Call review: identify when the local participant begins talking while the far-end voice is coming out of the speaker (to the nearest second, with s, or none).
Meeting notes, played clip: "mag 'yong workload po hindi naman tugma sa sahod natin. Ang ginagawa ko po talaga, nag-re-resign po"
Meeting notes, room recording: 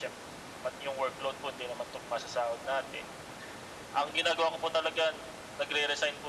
none